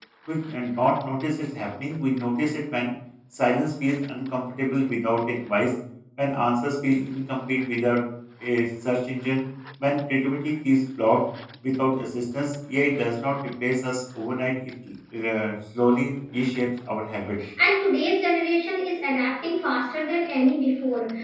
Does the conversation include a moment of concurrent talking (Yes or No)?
No